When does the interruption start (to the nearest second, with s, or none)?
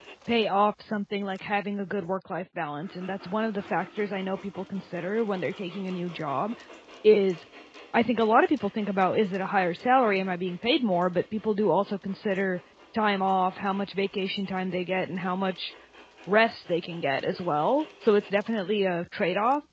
none